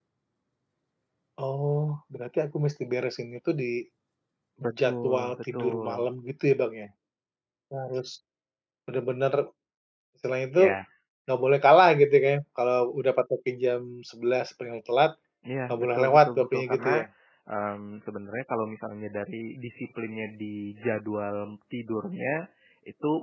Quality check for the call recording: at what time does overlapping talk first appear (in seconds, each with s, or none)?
4.8 s